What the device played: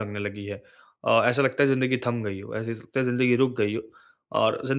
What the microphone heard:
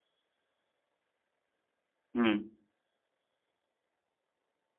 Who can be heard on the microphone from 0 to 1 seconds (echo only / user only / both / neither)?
neither